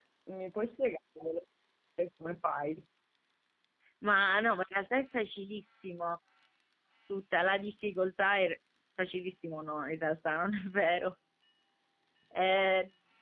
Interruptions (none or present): none